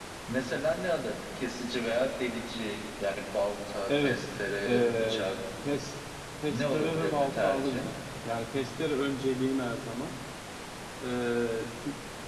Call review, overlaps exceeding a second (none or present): present